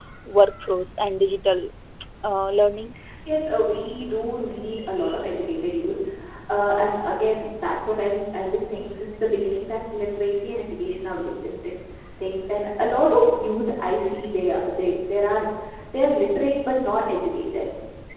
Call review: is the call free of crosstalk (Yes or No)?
Yes